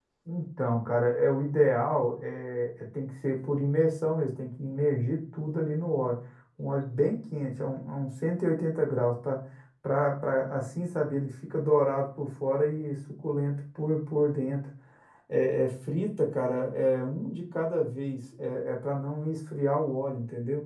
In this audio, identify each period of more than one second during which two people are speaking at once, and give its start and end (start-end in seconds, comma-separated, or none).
none